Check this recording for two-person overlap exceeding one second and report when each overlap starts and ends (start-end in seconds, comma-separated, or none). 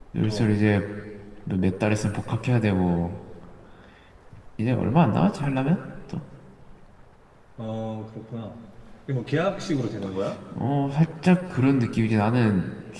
none